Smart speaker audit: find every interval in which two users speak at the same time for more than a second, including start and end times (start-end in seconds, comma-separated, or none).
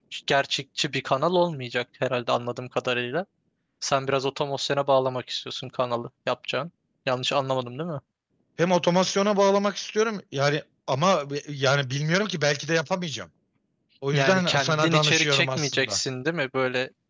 14.1-16.0